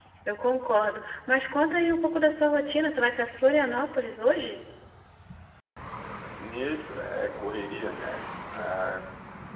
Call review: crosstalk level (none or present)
none